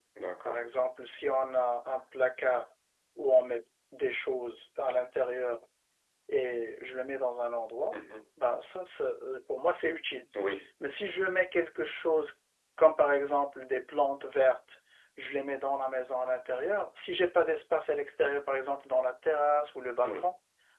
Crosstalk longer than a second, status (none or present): none